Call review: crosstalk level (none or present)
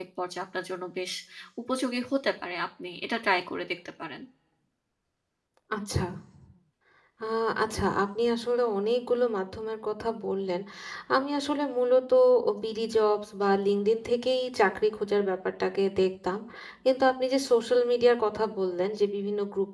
none